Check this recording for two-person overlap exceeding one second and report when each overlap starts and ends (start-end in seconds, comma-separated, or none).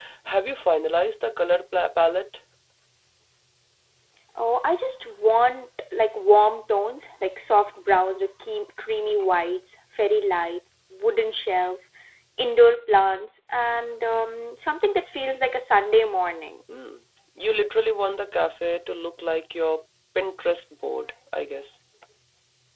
none